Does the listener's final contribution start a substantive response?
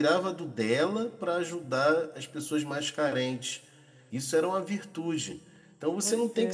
No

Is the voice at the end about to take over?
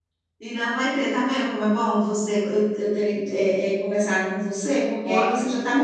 No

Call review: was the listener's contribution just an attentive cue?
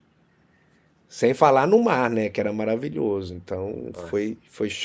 Yes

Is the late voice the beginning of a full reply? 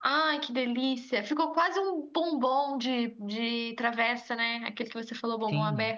Yes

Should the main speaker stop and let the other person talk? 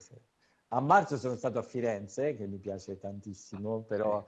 No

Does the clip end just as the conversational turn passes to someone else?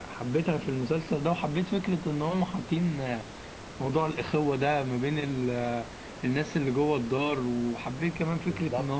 No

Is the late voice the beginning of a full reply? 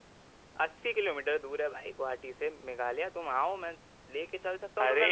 No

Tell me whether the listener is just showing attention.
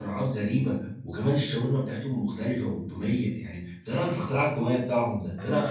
No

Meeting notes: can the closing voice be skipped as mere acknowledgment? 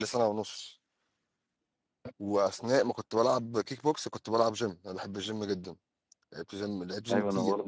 No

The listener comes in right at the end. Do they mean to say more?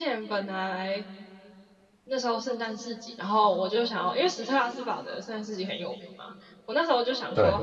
No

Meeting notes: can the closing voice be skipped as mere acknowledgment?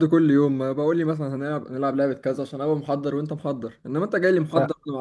No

